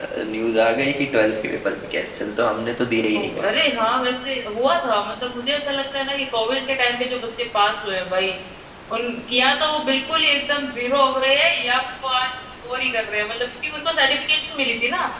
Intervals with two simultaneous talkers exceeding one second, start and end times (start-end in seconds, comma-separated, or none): none